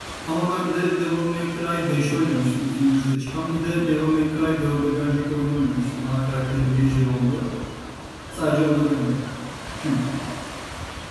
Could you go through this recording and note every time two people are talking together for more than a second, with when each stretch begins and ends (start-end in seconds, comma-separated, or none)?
none